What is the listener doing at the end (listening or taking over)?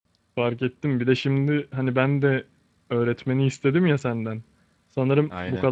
listening